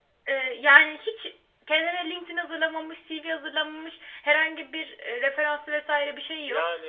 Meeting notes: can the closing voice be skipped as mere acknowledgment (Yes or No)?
No